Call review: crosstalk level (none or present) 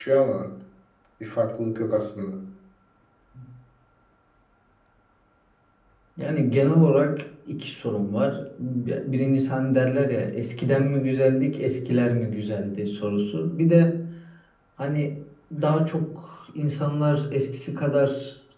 none